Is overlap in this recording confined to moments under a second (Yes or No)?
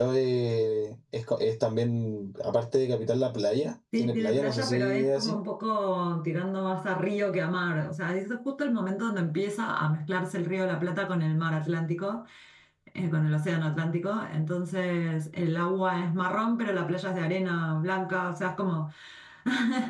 No